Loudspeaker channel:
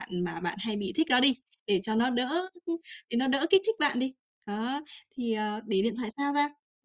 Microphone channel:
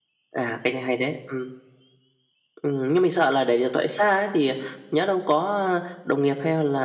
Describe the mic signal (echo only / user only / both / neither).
user only